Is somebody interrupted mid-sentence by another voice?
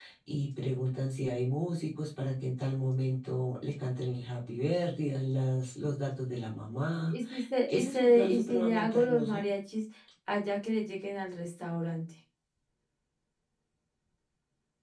Yes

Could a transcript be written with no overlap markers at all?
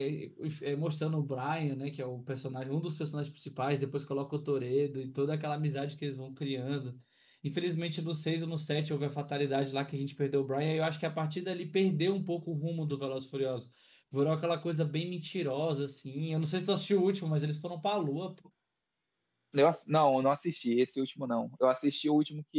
Yes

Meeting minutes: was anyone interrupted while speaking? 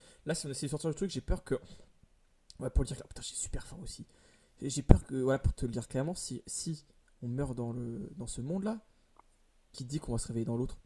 No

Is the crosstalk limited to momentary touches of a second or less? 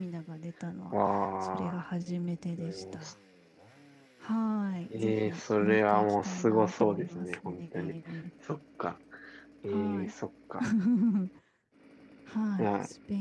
No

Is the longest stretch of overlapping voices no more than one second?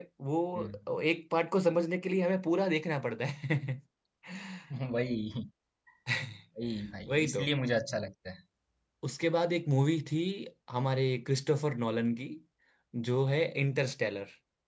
Yes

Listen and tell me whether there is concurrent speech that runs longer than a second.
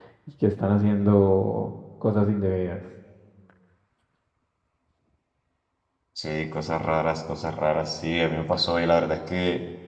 No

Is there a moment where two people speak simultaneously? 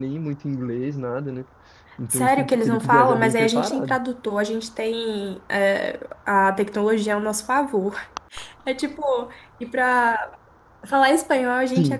Yes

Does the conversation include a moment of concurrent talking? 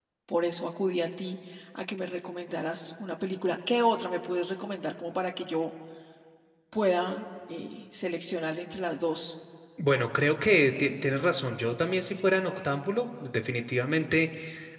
No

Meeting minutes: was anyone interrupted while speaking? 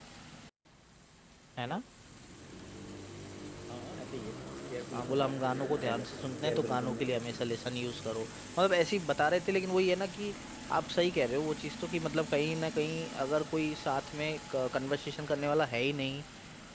Yes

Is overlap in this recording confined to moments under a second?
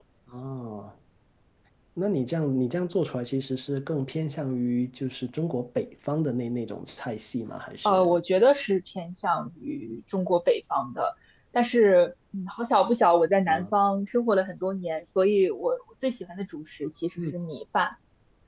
Yes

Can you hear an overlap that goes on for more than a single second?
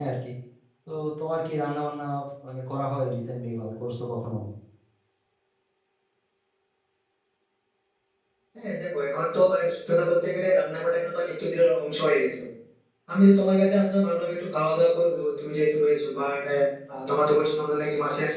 No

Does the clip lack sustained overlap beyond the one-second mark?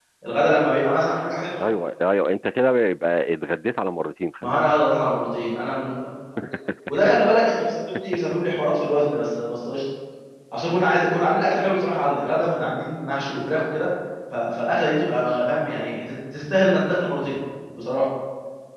Yes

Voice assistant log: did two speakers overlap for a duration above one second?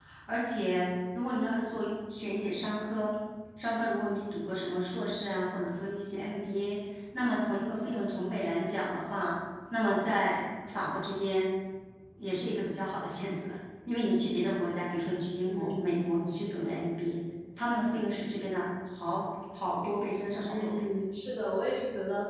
Yes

